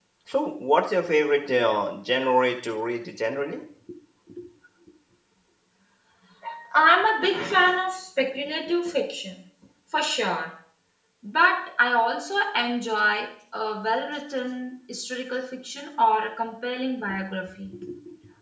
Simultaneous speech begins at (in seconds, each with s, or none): none